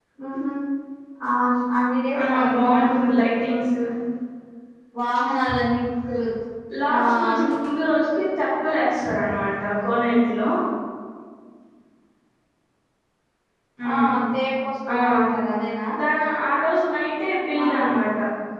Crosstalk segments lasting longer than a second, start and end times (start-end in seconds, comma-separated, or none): 2.1-3.3